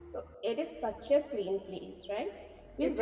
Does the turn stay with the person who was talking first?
Yes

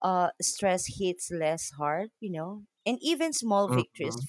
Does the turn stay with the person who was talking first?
Yes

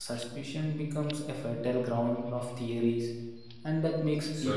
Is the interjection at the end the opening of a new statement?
No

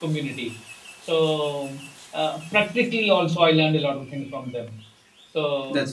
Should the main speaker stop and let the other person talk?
No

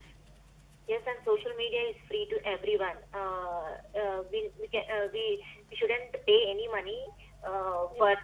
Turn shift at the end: No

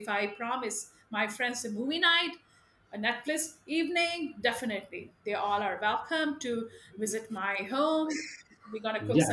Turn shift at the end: Yes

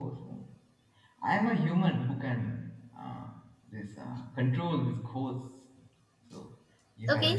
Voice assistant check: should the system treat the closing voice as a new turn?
Yes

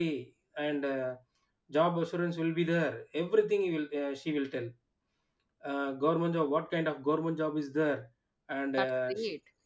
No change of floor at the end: Yes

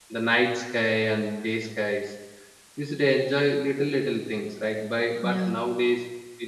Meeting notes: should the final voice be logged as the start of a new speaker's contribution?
No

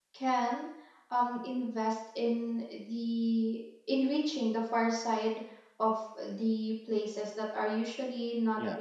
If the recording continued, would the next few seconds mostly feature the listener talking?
No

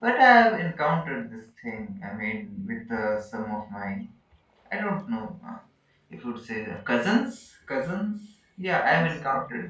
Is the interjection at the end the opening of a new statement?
Yes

